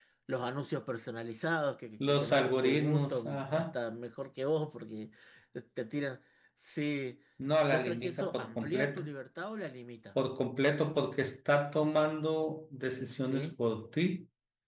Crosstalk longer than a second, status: present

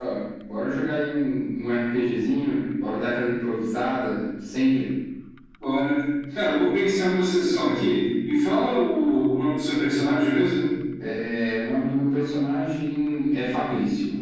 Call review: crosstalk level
none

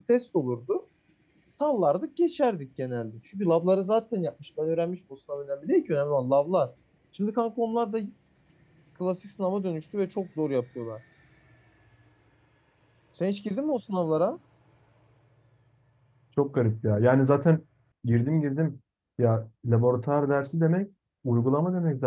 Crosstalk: none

